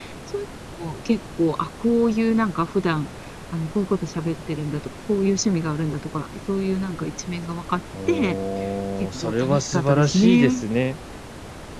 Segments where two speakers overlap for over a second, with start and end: 9.2-10.6

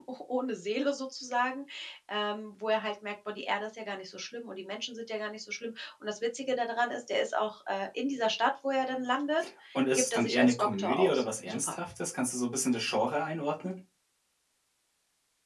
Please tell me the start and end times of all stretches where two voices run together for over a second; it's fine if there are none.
10.0-11.6

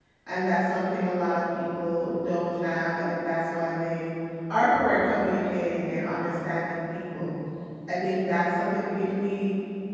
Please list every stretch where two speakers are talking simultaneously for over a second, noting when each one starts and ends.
none

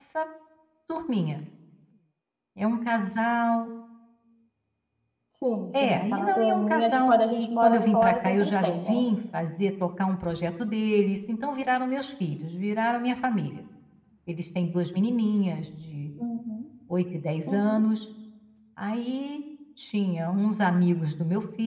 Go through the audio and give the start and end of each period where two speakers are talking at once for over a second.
5.8-9.0

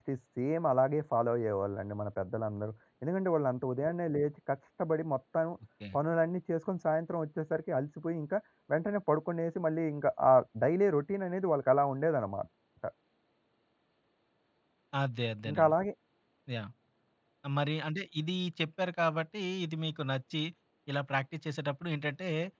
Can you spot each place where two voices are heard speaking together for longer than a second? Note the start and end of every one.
none

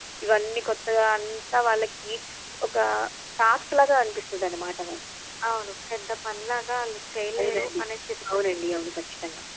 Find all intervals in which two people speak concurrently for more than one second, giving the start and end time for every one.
none

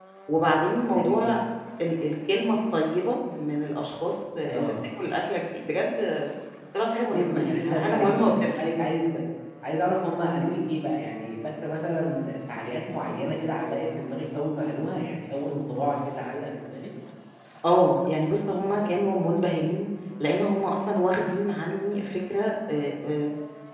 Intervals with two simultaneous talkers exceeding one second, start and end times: 7.1-8.6

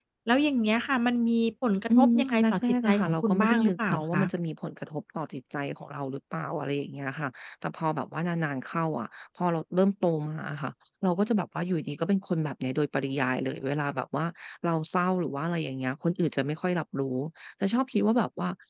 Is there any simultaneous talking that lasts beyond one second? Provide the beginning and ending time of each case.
2.0-4.2

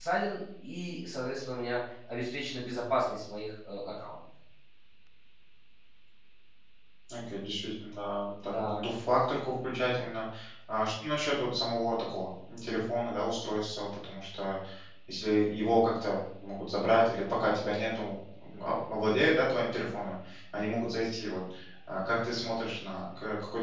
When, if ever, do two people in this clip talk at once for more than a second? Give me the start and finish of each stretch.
none

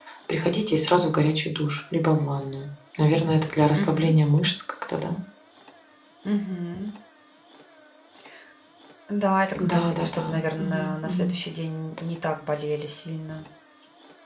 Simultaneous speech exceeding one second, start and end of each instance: 9.7-11.3

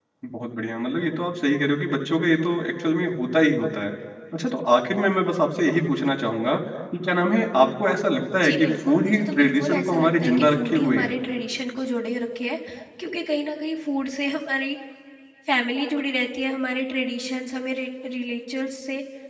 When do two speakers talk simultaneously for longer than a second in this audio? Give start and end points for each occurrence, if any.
8.4-11.1

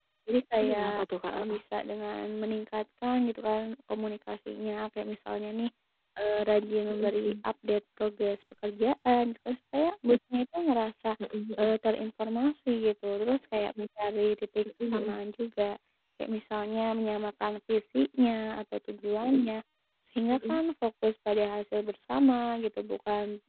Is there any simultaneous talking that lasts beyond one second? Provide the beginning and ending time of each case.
none

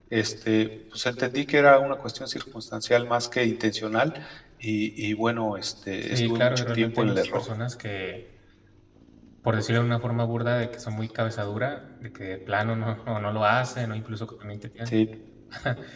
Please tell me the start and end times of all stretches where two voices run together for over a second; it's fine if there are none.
6.0-7.4

